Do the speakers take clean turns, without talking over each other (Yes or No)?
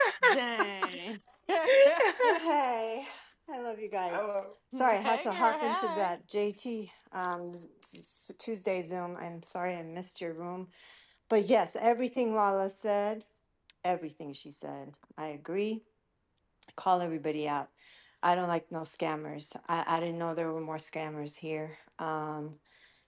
No